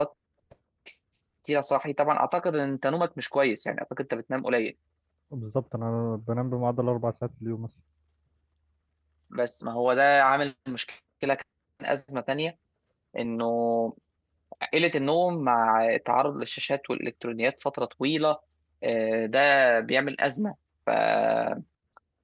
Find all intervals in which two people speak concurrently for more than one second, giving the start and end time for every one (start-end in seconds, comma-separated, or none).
none